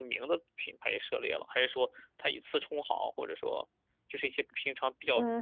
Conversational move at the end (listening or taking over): taking over